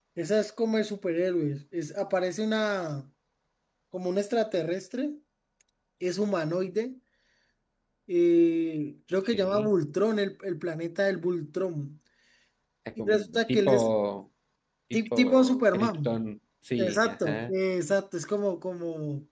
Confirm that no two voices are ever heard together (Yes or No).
No